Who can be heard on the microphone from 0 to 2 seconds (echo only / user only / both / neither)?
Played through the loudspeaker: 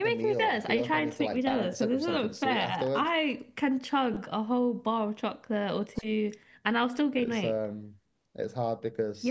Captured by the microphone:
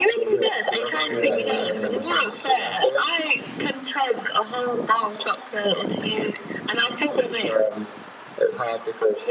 both